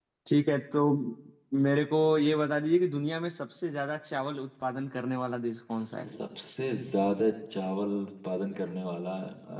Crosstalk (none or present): none